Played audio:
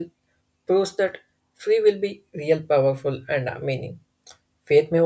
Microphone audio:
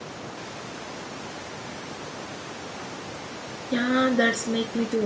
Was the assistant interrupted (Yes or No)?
Yes